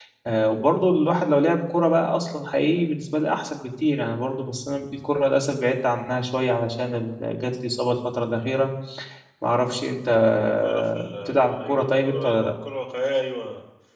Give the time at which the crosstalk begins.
10.6 s

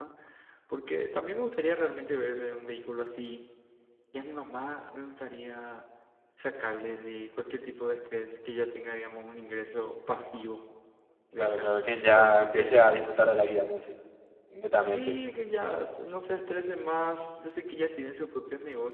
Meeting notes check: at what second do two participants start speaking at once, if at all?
11.4 s

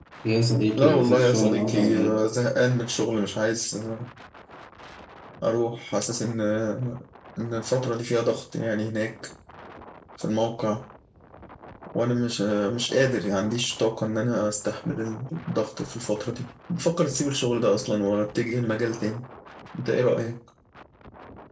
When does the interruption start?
0.8 s

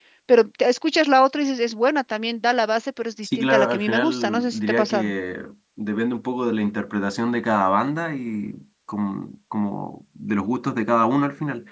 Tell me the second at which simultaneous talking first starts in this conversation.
3.2 s

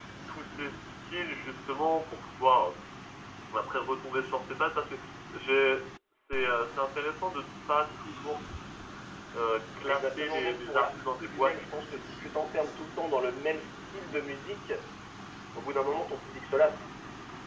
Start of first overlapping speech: 9.9 s

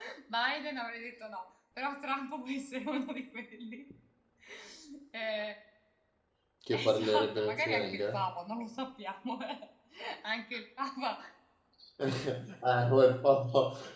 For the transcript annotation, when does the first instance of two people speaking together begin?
6.7 s

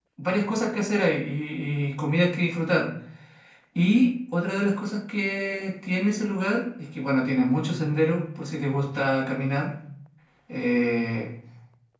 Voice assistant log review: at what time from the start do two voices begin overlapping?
none

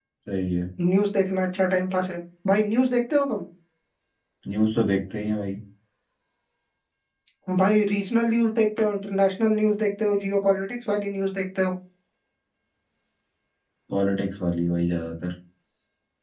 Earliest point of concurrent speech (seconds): none

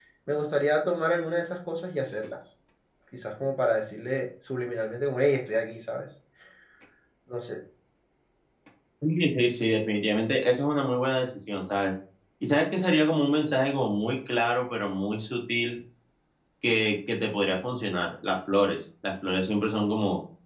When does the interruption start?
none

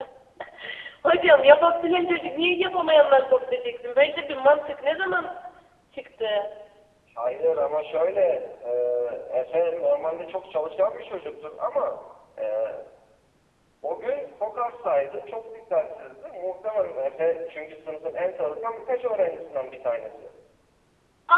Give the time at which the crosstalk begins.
none

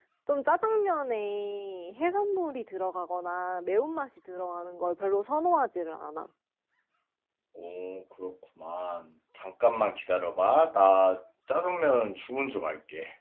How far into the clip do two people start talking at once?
none

